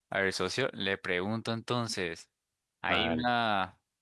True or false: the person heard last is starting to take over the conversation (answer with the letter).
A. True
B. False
B